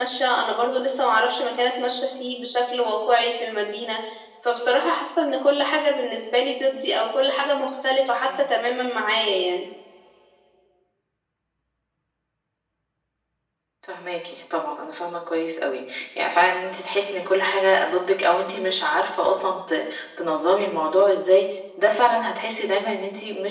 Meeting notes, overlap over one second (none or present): none